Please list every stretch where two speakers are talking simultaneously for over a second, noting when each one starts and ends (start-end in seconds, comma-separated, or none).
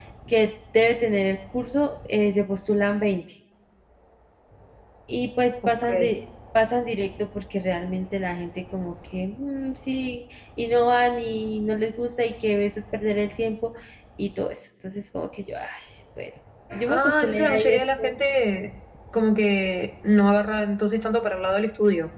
16.9-18.1